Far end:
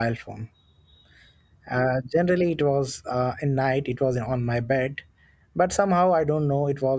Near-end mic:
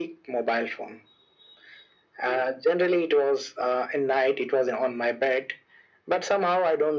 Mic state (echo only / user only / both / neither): echo only